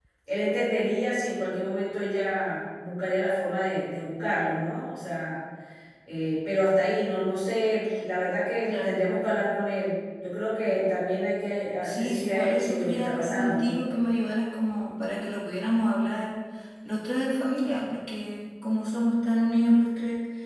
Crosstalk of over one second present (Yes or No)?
Yes